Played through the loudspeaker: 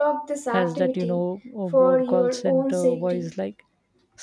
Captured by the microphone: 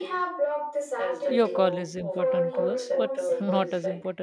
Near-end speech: present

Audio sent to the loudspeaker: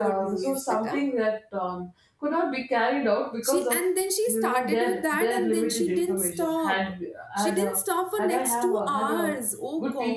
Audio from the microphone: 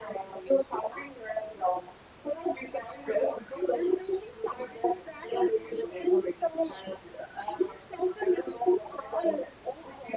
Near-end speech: none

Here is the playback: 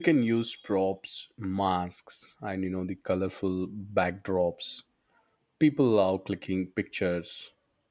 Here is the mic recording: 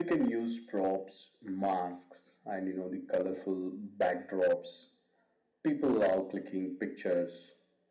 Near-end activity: none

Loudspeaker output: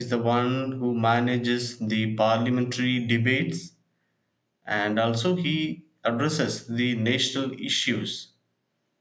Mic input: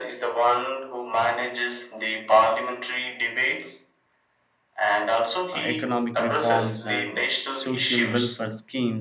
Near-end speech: present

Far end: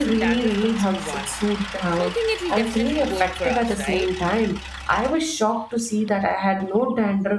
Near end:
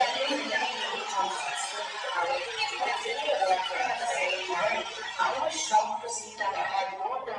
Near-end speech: none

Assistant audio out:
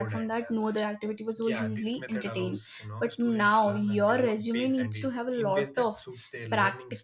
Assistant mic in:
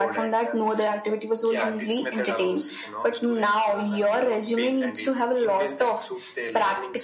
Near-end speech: none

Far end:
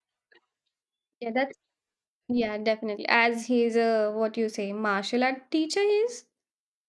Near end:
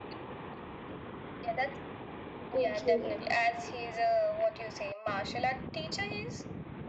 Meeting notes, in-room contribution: present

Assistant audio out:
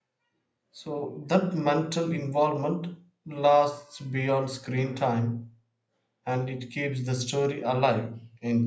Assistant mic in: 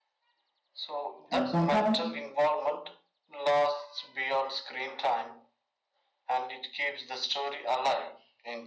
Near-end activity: present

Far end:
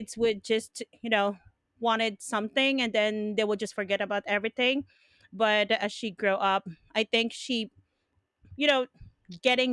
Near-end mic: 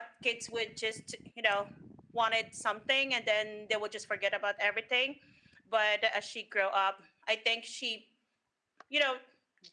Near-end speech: none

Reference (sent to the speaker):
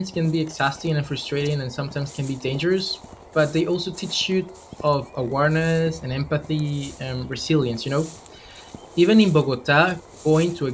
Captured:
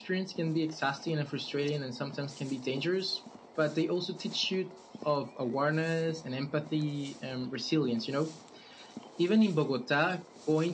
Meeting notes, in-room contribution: none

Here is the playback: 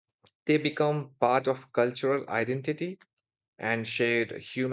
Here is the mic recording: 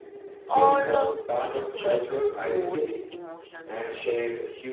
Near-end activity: present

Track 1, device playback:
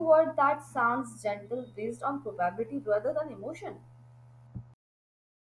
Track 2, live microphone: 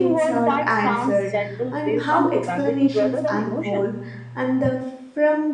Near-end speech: present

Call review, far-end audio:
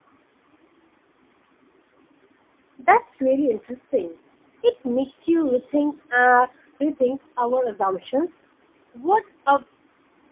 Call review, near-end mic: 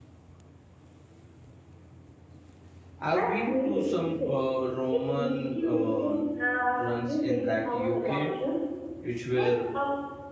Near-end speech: present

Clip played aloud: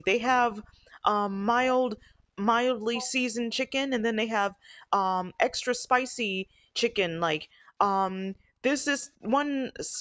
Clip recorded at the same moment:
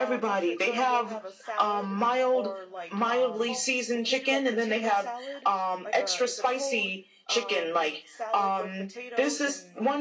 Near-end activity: present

